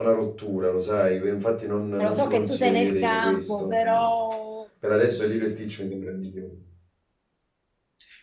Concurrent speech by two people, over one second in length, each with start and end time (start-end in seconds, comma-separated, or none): 2.0-4.0